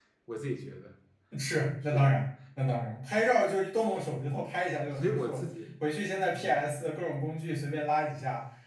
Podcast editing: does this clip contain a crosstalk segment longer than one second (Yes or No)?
No